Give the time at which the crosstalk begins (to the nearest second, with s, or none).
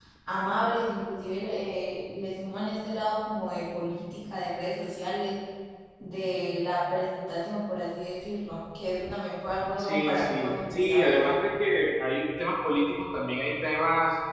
10 s